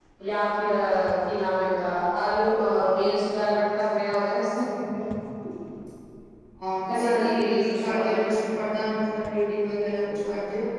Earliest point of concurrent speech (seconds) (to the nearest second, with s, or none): 7 s